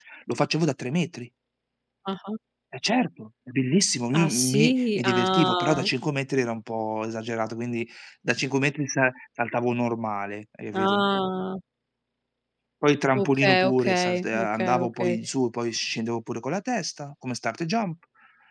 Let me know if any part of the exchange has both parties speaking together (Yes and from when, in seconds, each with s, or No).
Yes, from 4.2 s